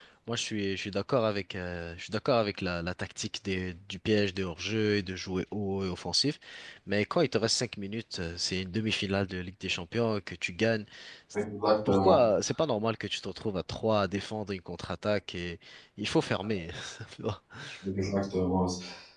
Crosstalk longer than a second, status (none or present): none